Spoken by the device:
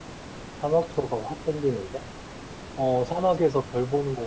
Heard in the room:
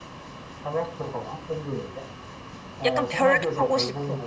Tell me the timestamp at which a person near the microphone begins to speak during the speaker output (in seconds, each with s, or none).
2.8 s